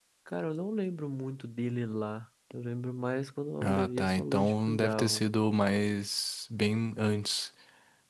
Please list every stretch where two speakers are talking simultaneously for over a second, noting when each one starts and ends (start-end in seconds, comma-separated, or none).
3.6-5.2